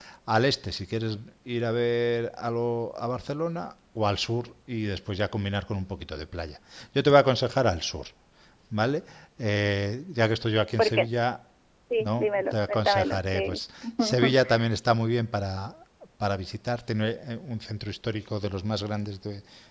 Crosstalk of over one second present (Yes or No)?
Yes